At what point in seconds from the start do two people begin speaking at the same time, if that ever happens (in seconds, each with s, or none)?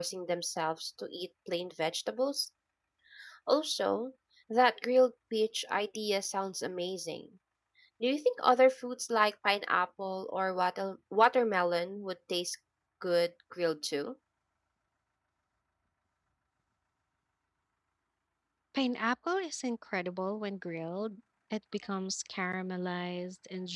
none